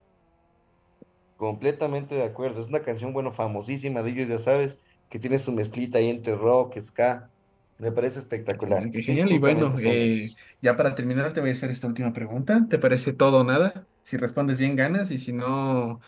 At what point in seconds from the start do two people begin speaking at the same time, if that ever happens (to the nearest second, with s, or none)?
8 s